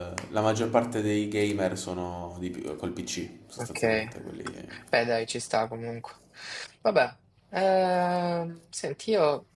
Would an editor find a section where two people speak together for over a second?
No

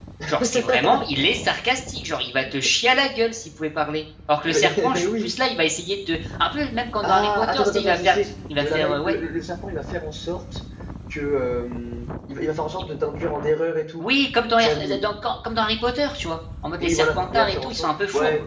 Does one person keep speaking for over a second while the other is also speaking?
Yes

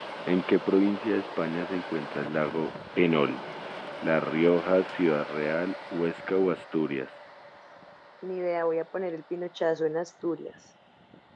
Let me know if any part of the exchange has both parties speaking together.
No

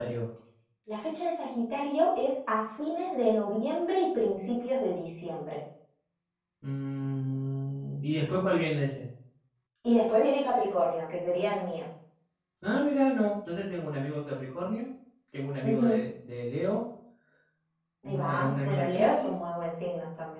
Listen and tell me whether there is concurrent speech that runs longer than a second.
Yes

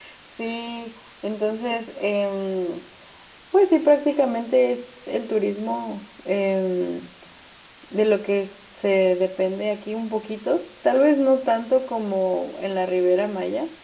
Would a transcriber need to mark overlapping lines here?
No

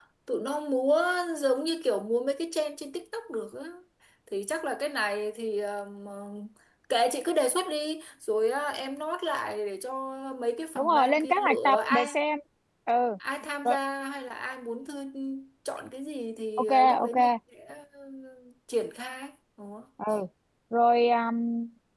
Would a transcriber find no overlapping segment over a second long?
No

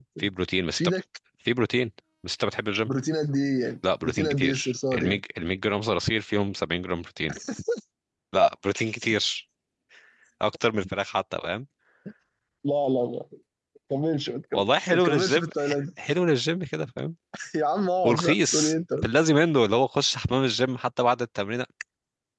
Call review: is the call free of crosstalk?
No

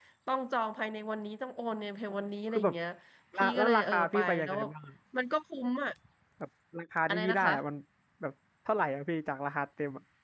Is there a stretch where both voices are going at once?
Yes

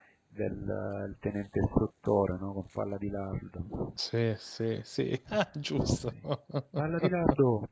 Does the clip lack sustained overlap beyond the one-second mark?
Yes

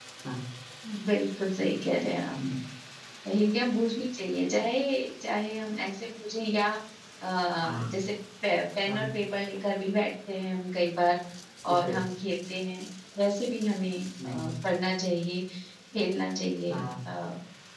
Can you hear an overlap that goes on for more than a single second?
No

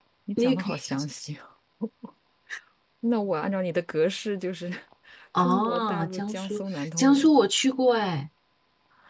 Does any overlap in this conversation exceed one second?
Yes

